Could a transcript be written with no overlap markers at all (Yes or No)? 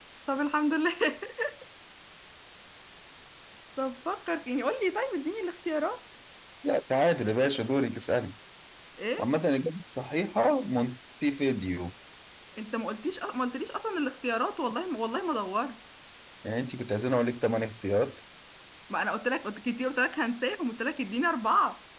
Yes